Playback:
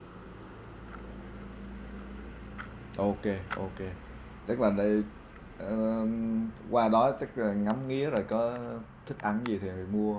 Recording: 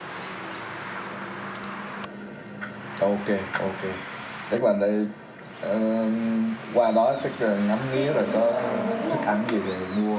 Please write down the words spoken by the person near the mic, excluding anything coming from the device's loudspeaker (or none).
cái chuẩn mà ở Huế luôn á